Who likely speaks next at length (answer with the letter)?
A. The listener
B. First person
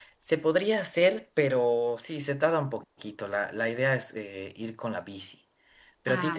B